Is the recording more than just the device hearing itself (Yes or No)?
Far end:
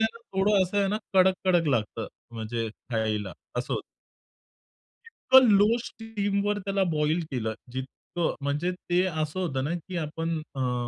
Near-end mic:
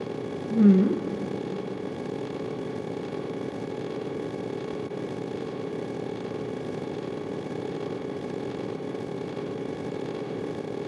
Yes